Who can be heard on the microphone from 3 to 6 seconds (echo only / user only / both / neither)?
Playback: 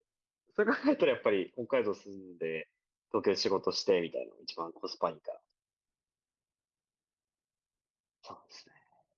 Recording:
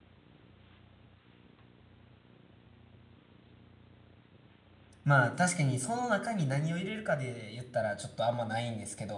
user only